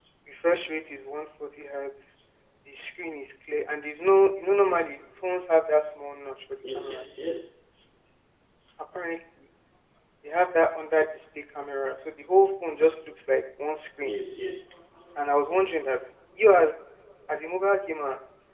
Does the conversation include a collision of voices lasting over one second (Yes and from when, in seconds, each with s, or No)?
No